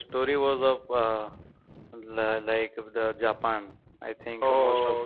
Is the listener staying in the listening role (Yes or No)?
Yes